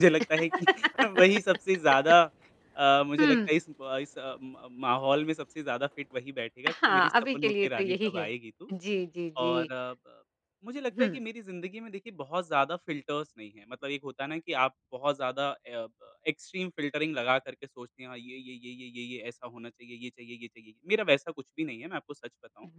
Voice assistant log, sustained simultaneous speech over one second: present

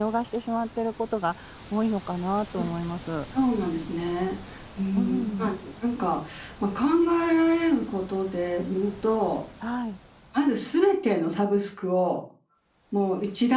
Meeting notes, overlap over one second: none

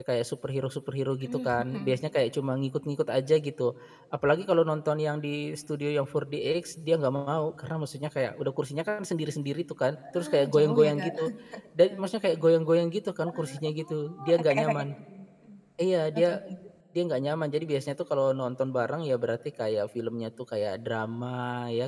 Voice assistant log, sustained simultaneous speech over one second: present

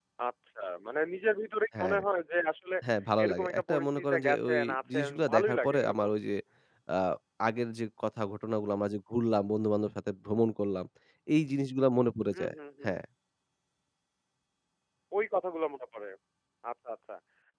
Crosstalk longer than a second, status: present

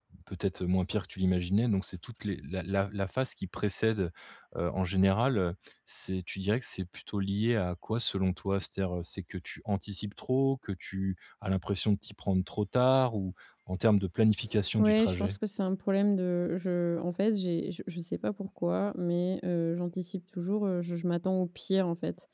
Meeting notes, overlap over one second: none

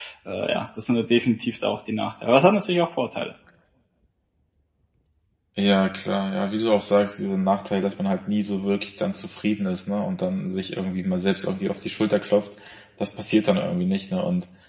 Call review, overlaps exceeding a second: none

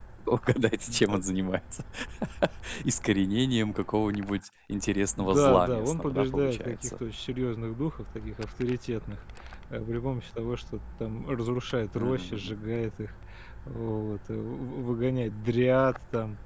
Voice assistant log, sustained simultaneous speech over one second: present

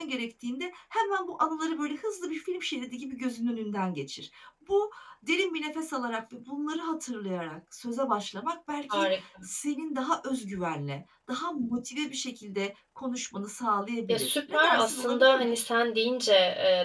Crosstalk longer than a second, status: present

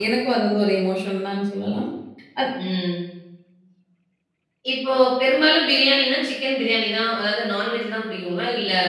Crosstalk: none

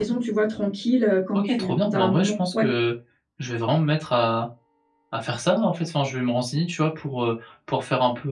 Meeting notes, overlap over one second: present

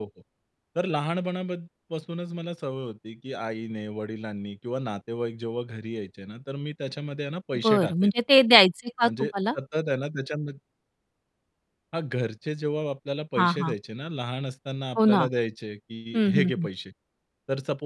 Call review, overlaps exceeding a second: none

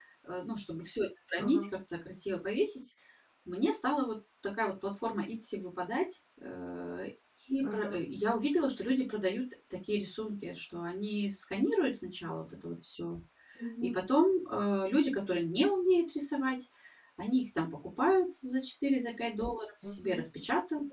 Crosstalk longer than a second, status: none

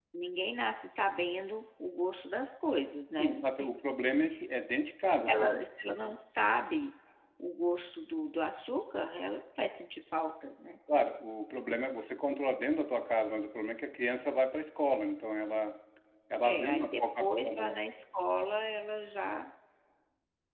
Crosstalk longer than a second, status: present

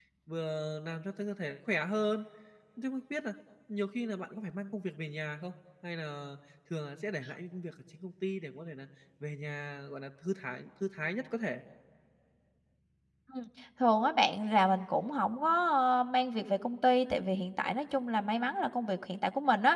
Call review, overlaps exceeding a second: none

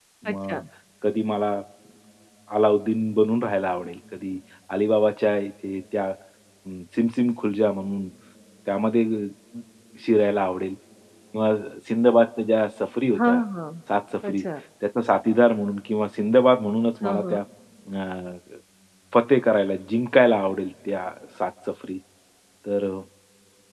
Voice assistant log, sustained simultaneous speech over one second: none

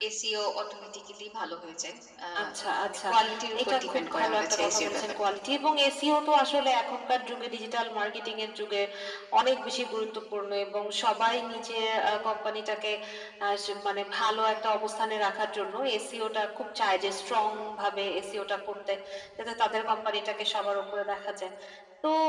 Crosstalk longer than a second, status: present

